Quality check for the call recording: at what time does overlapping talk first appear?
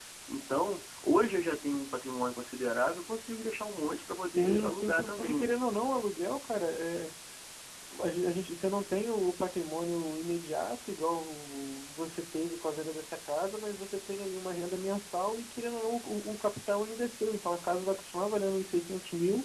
4.2 s

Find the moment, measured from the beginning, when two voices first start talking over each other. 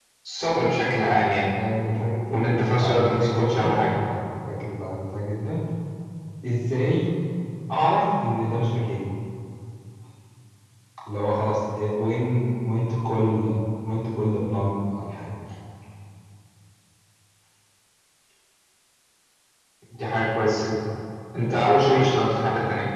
2.3 s

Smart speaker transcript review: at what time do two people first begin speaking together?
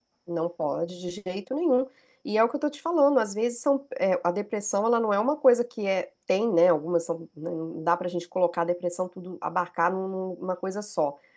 none

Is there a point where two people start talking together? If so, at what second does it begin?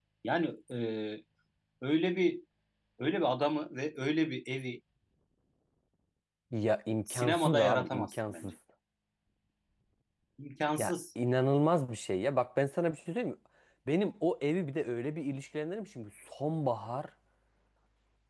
7.1 s

